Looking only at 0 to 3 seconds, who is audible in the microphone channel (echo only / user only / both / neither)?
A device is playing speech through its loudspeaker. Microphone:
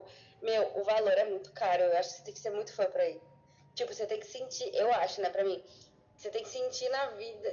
echo only